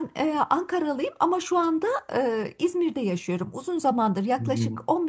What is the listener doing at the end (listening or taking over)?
listening